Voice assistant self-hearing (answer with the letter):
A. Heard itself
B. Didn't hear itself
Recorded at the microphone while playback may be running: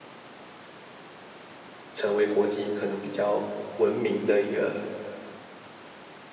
B